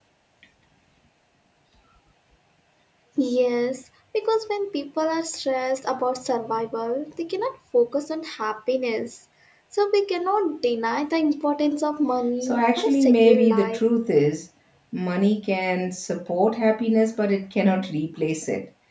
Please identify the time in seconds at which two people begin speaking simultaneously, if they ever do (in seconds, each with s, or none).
12.4 s